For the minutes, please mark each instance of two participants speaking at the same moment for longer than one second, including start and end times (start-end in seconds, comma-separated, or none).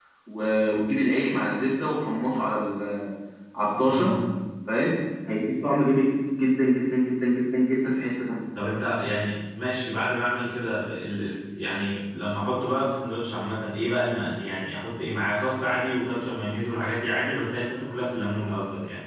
none